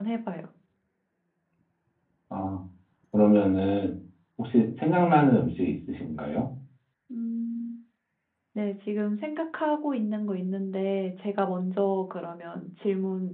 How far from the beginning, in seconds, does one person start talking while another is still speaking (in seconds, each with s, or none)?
none